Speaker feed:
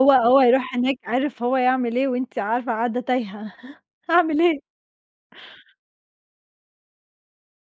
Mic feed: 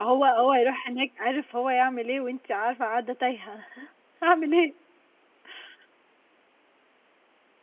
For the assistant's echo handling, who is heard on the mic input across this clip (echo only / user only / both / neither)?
echo only